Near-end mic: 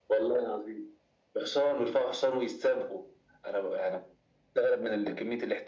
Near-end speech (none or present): none